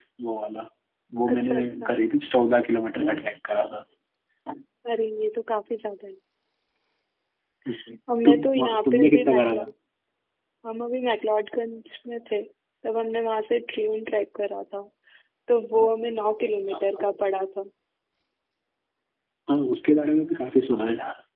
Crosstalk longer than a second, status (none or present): present